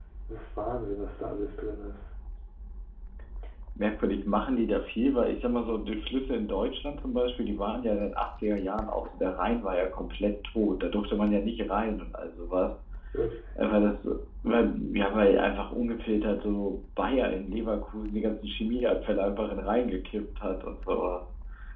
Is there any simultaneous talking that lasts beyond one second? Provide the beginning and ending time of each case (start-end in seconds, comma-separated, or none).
none